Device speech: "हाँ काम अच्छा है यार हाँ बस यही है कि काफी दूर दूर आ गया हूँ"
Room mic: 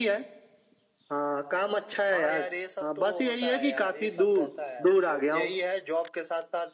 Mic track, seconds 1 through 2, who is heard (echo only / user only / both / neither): echo only